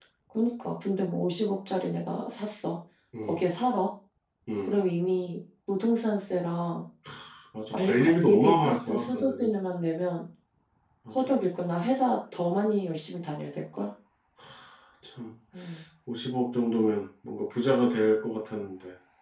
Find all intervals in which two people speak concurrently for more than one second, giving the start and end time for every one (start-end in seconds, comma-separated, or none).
7.7-9.5